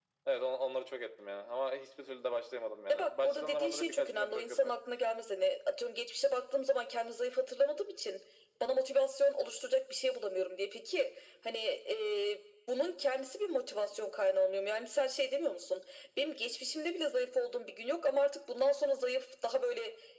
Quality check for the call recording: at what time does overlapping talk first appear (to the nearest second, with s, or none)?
3 s